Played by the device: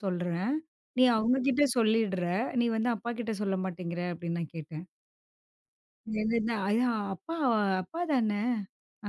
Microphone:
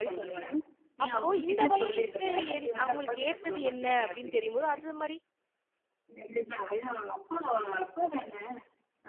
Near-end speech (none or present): present